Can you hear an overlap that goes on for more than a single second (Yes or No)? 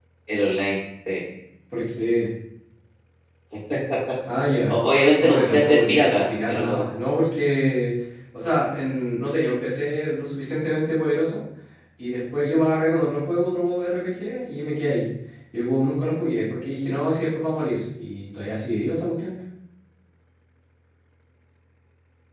Yes